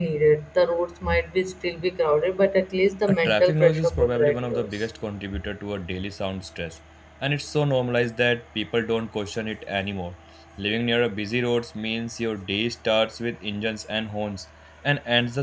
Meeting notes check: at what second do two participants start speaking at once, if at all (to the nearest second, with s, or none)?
3 s